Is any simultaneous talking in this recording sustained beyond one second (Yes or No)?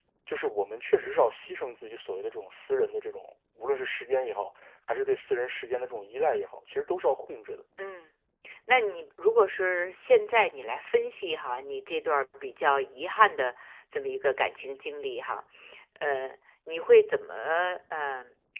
No